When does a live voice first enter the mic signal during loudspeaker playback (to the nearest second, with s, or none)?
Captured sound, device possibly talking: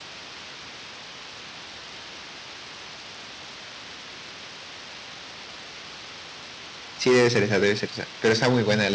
7 s